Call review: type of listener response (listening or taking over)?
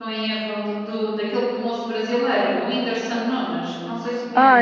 taking over